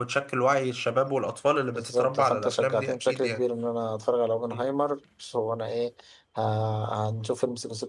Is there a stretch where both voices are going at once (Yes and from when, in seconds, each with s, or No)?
Yes, from 1.8 s